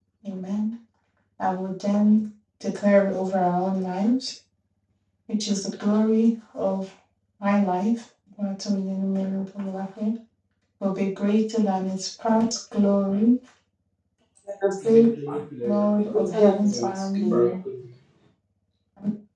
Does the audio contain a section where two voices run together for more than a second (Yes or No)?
Yes